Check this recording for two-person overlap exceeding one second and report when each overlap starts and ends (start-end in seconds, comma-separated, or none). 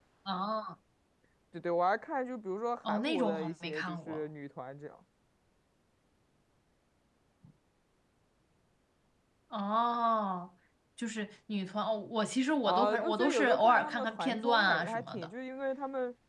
2.9-4.2, 12.7-15.3